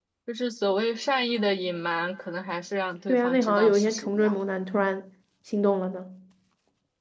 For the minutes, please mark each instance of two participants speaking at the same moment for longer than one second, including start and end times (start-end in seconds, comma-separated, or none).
3.1-4.3